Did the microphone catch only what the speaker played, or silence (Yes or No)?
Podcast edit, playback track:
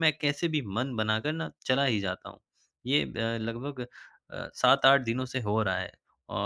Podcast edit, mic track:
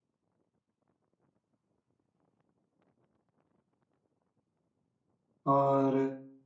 No